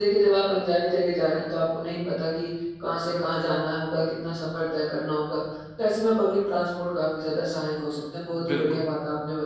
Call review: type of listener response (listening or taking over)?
listening